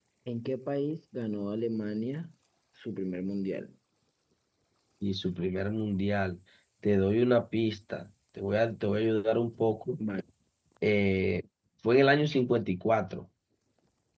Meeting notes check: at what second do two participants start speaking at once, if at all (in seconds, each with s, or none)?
none